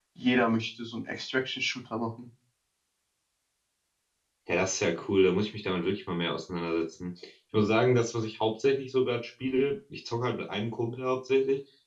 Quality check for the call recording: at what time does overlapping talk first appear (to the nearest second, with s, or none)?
none